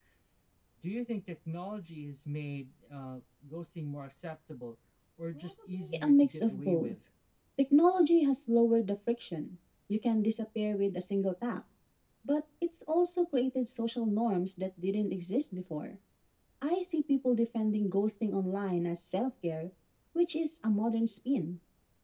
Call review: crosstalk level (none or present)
present